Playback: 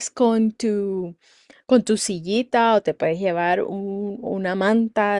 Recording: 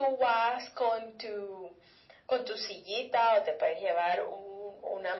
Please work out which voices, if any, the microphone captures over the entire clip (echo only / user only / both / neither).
echo only